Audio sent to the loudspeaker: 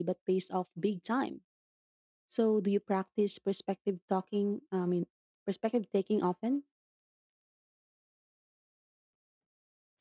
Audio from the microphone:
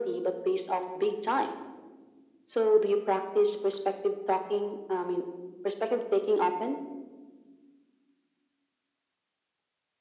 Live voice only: none

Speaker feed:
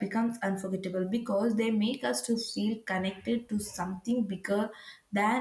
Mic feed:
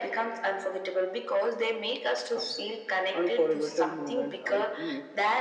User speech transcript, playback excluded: come. Unforgettable moments are gifts.

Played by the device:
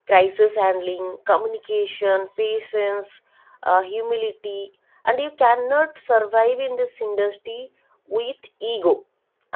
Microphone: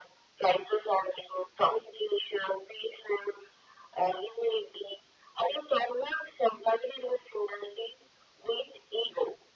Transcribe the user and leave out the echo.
none

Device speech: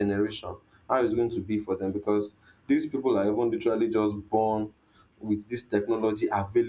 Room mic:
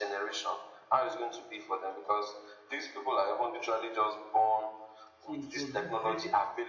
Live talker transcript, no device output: So she was using

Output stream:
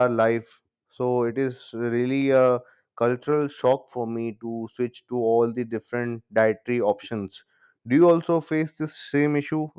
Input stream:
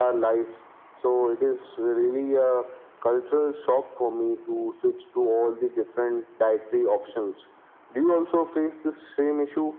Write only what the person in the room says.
none

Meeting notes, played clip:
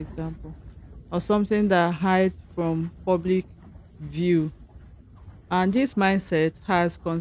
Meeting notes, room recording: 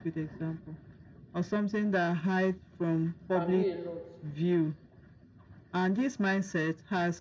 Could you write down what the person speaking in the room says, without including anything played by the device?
can be a lot.

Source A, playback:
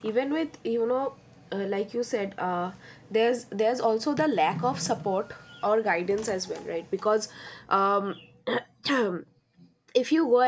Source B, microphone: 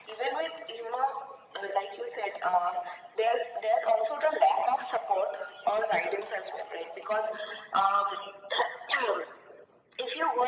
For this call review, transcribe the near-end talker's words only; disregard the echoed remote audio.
none

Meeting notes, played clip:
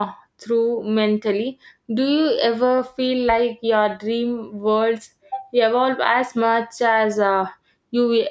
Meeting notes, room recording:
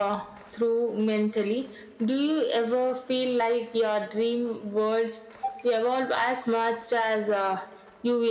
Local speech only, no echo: none

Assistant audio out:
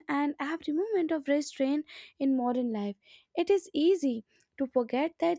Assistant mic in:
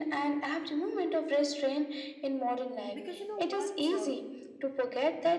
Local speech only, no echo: because you know what uh,

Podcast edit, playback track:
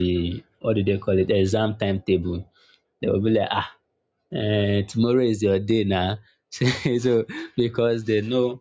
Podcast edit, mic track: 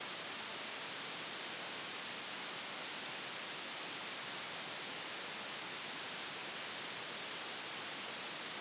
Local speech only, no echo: none

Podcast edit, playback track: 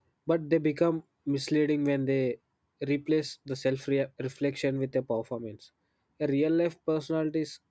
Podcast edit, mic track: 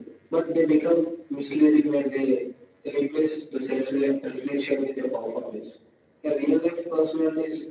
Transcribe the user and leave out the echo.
none

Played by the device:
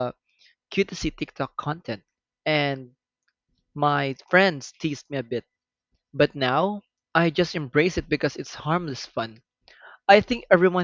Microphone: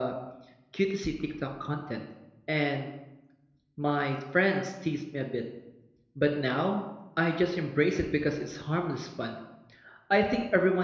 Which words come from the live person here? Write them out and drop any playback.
none

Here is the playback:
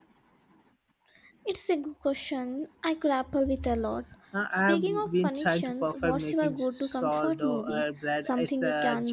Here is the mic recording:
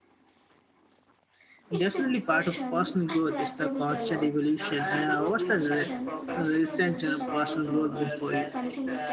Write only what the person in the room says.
Definitely part of personal growth. It's a constant evolution. Uh, what's a re- recent you know, personal growth been for you?

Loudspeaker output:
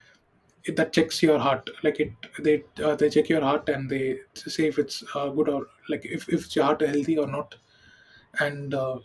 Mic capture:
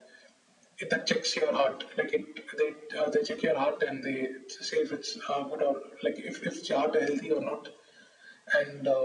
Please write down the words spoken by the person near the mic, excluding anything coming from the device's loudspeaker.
none

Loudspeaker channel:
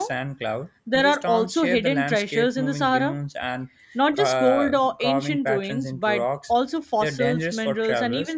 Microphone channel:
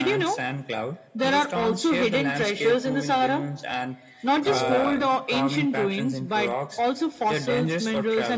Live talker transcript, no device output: Oh wow.

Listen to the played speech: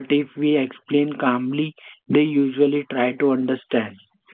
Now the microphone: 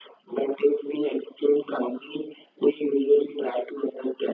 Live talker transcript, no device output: none

